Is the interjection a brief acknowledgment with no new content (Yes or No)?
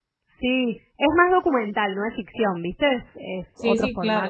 No